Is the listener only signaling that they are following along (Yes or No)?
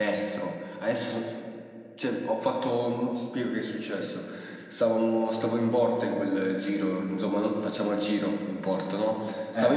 Yes